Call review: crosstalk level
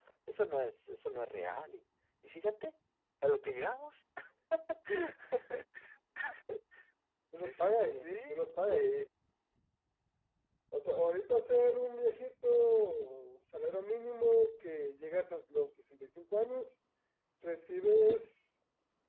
present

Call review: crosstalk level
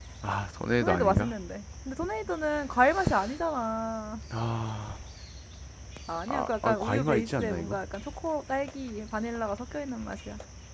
present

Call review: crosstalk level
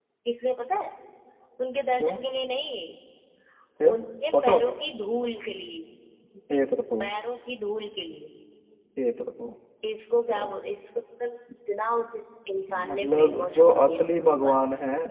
present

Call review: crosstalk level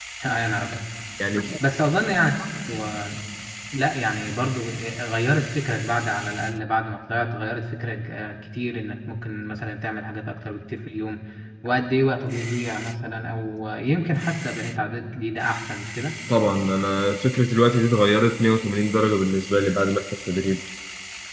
none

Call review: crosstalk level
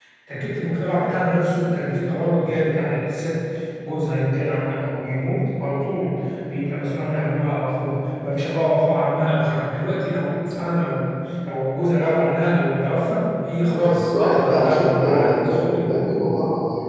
present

